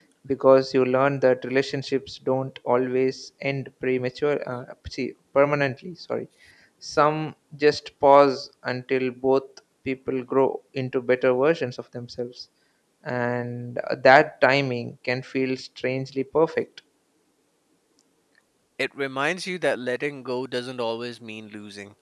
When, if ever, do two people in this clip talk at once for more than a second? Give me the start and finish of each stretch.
none

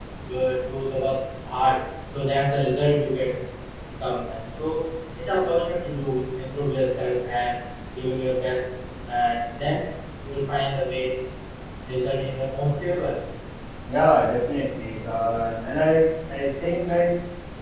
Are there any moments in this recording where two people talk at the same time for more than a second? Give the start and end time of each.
none

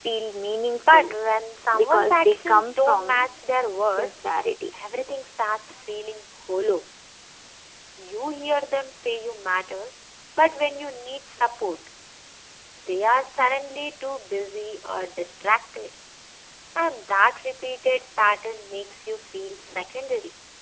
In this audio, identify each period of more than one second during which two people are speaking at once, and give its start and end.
1.8-3.2

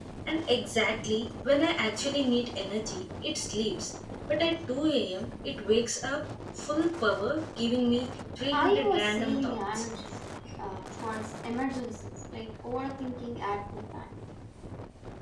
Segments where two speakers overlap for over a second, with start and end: 8.6-9.8

